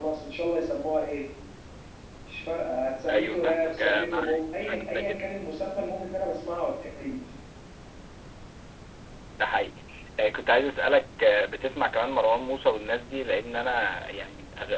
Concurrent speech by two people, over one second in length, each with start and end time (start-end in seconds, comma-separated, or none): 3.1-5.2